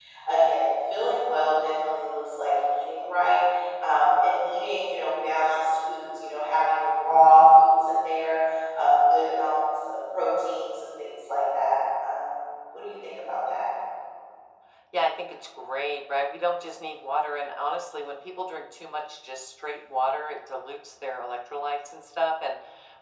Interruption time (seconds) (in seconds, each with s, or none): none